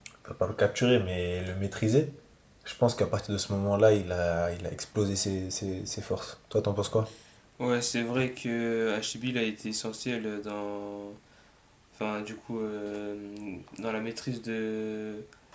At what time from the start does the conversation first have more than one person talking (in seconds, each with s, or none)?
none